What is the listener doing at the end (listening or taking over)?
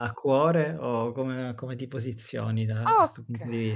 taking over